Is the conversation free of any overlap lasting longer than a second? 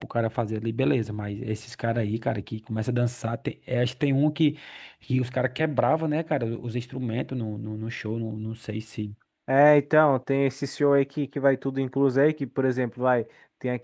Yes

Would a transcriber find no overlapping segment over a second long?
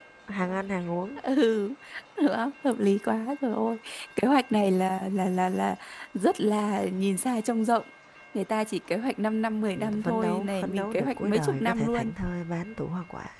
No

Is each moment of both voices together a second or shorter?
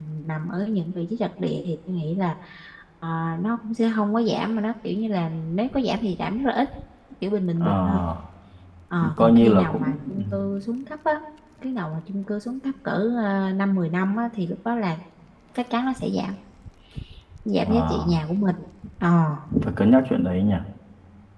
No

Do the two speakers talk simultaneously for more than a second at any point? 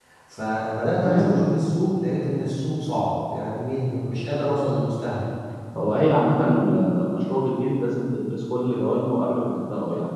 No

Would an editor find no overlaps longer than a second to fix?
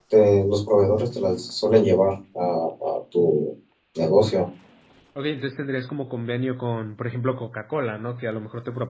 Yes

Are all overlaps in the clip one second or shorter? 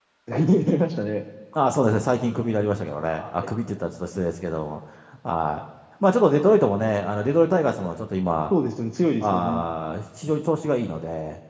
Yes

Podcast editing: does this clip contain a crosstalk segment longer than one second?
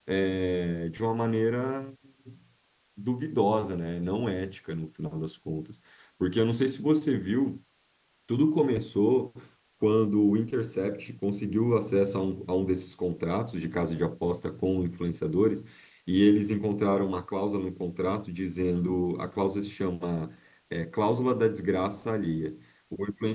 No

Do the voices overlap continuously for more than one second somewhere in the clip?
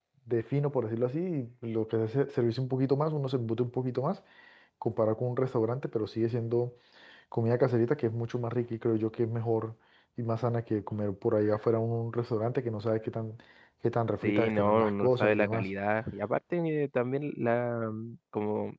Yes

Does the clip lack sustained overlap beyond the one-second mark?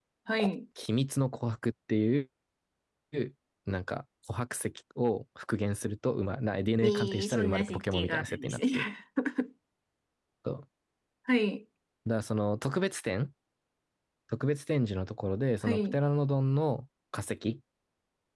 No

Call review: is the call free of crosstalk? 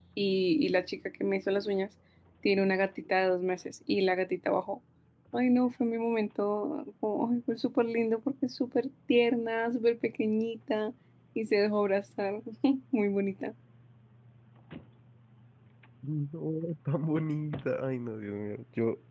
Yes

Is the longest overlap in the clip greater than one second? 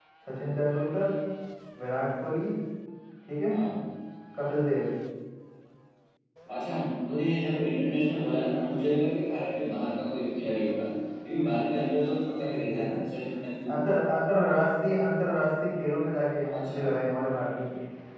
No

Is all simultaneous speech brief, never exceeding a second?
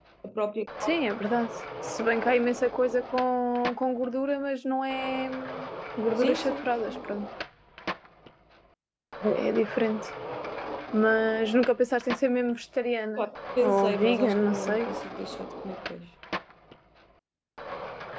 No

